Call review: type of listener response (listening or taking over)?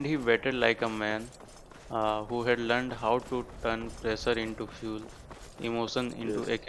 listening